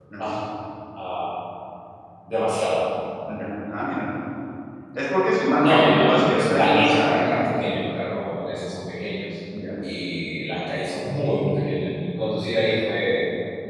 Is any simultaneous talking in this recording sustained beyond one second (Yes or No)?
Yes